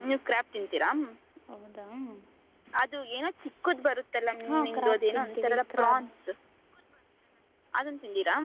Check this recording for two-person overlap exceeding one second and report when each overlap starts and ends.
4.5-6.0

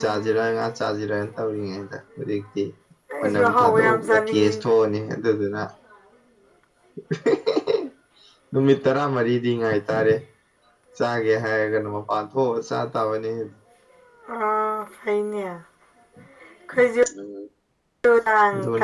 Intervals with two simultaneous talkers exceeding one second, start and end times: 3.2-4.6

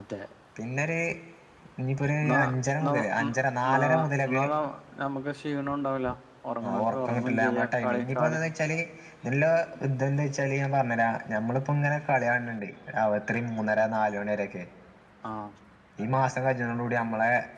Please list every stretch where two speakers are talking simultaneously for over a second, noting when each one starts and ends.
6.8-8.4

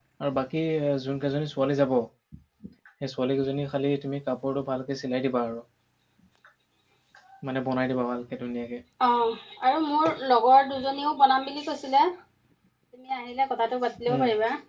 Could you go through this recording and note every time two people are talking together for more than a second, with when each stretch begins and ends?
none

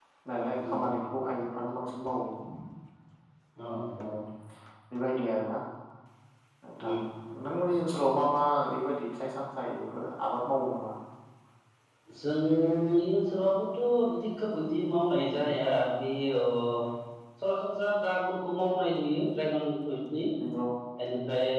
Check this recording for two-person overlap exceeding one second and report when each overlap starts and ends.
none

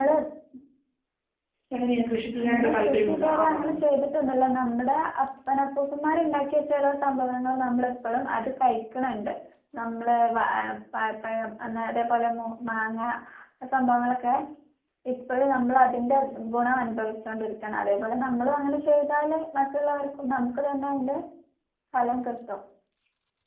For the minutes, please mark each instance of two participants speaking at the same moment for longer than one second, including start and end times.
2.4-3.7

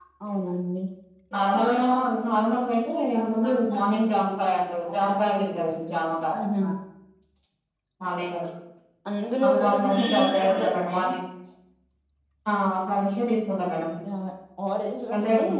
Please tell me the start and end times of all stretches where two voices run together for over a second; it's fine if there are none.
9.4-10.9

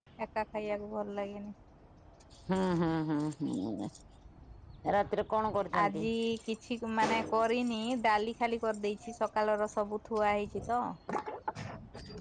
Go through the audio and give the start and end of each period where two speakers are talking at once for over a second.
none

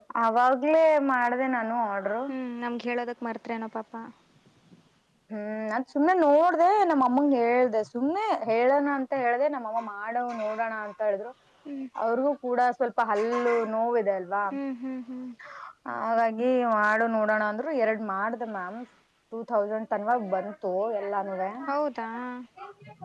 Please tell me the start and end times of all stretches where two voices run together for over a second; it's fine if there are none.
none

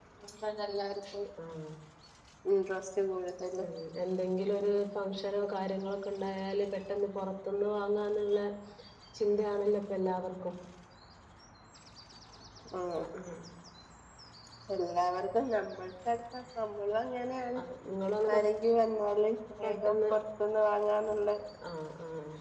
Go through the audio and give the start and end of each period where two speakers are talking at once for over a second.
none

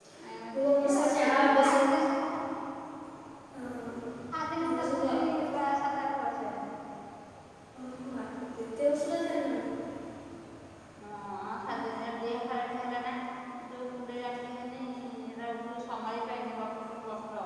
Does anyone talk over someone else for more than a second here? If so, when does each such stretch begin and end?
0.5-2.0

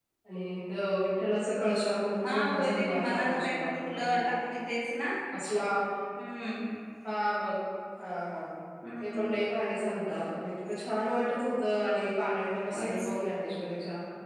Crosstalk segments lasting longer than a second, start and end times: 2.2-4.2

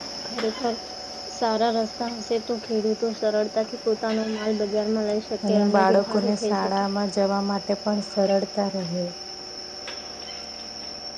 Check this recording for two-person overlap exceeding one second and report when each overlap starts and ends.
5.5-6.7

